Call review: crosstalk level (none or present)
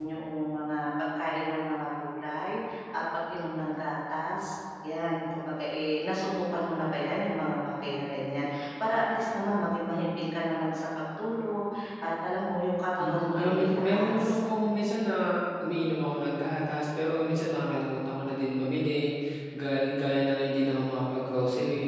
present